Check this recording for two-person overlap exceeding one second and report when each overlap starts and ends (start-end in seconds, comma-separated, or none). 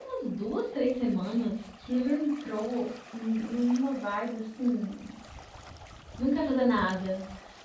none